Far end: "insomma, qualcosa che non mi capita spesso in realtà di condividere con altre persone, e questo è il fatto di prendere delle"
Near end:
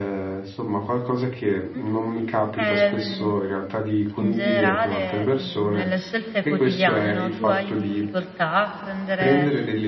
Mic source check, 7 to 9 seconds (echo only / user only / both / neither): both